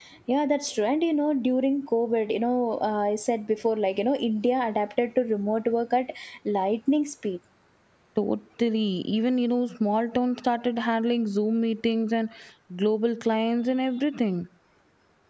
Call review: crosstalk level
none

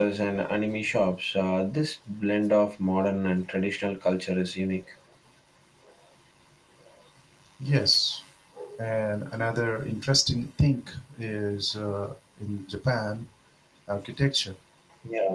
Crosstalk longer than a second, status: none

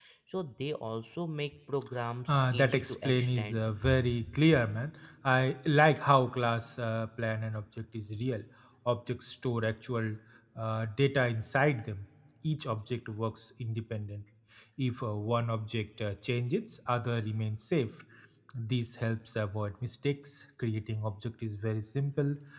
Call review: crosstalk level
present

